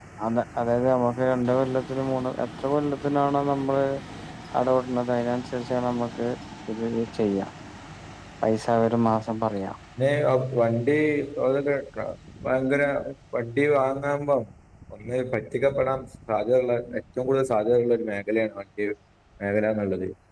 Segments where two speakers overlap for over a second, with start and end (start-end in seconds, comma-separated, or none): none